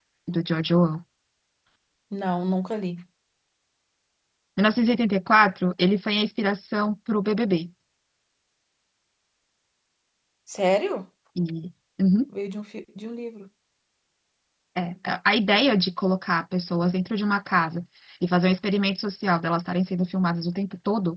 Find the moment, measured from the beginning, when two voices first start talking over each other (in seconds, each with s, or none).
none